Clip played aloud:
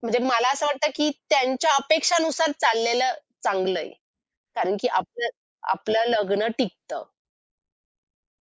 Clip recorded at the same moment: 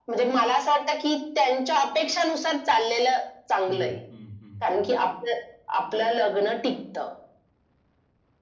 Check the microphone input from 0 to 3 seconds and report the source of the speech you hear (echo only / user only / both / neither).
echo only